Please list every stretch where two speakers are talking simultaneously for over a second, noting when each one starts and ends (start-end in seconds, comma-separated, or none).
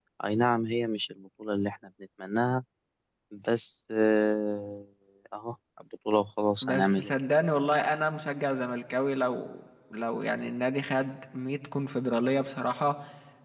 none